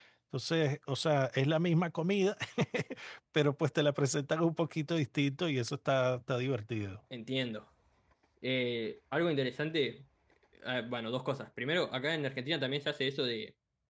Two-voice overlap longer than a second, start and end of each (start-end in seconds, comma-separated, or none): none